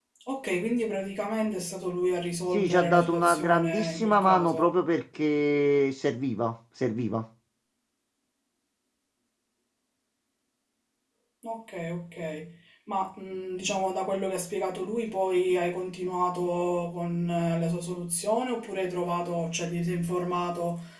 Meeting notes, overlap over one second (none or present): present